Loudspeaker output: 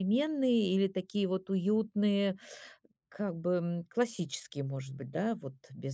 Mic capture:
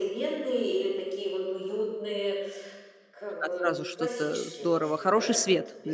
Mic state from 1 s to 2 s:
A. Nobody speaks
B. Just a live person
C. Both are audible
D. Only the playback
D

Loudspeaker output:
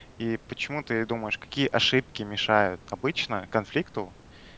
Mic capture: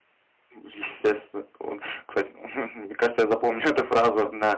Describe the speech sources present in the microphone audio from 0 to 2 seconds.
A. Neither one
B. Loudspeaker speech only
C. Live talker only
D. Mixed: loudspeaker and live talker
C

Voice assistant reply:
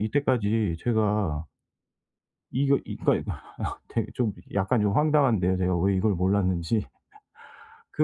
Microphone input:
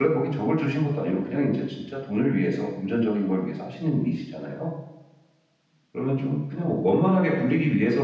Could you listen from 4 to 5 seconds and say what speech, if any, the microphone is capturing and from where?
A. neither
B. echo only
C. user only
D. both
C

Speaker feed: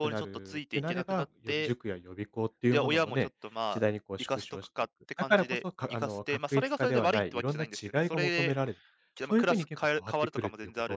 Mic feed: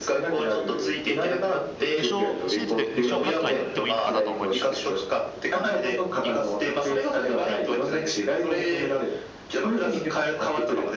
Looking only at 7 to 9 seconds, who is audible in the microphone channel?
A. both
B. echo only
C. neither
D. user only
B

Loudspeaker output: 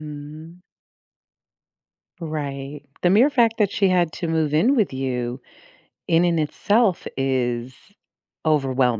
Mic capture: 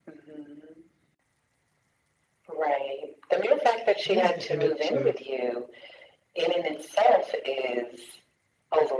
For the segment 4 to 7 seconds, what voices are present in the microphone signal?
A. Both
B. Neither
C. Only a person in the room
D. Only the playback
A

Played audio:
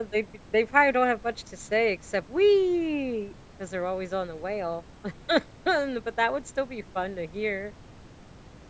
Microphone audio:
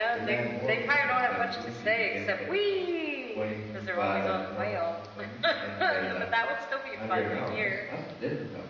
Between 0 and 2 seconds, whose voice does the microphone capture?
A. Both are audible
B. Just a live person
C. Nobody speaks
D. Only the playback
A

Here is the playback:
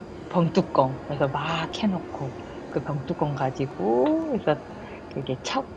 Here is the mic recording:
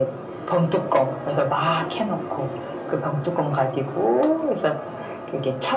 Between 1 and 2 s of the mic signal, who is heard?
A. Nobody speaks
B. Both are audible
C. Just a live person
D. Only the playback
D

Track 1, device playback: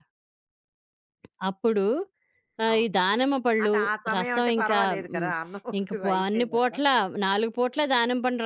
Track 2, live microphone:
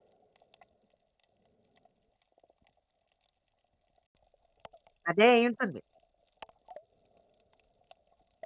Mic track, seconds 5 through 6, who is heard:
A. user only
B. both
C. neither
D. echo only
A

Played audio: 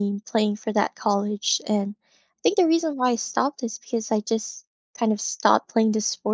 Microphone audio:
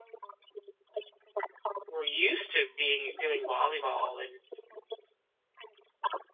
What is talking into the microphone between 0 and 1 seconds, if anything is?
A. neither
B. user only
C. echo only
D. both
C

